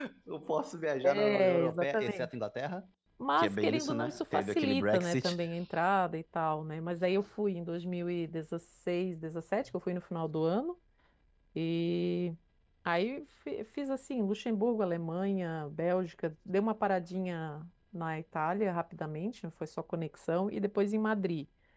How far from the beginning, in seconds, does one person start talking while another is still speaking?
1.0 s

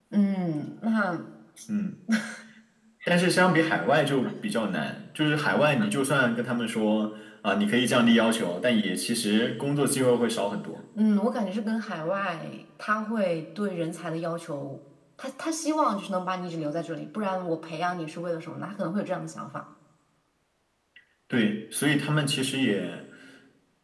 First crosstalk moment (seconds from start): none

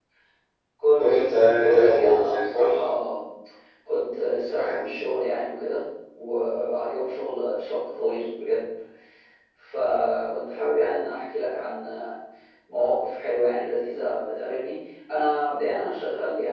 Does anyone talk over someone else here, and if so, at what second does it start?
1.0 s

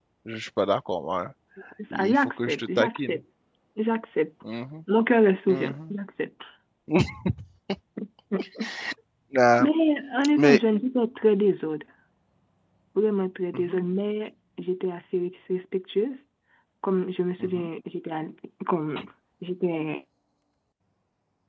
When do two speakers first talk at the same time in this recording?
1.9 s

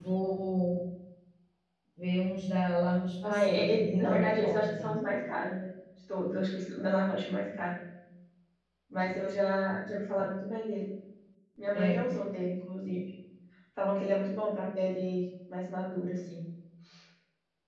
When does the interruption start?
3.2 s

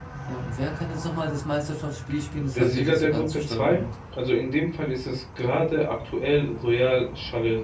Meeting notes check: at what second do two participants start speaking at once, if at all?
2.5 s

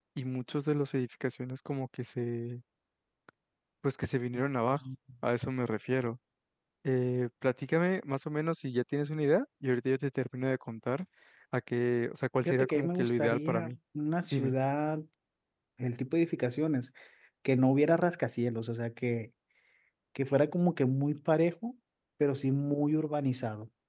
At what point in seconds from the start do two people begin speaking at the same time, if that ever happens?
12.4 s

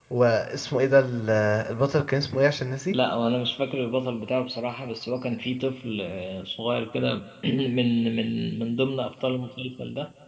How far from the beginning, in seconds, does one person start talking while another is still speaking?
none

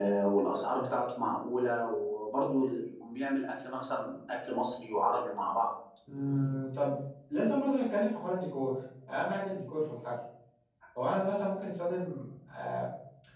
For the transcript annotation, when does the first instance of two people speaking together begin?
none

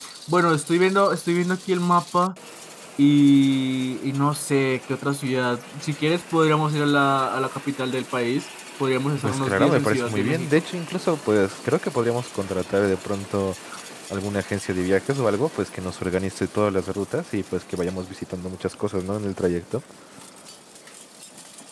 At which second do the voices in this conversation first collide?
9.2 s

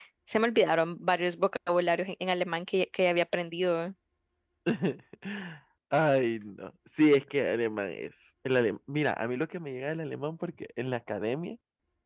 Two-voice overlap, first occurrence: none

